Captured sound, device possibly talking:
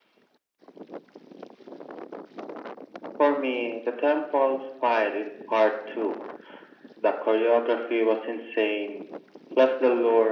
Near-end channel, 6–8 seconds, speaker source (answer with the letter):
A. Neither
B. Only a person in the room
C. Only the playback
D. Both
C